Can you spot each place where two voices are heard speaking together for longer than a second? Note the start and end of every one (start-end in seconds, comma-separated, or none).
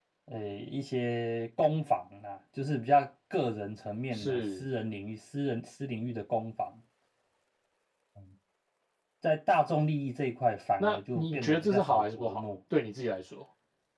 10.8-12.4